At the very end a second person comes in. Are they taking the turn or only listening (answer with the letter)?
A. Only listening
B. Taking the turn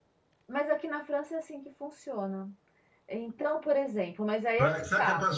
B